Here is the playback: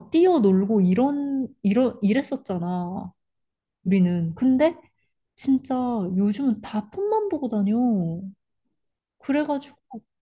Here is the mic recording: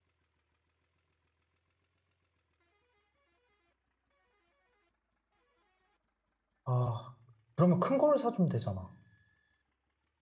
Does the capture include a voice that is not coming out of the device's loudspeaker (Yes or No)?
Yes